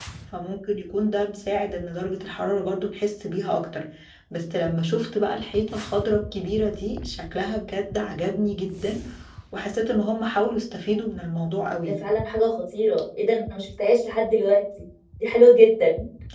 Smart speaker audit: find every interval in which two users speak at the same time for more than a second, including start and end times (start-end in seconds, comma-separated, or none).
none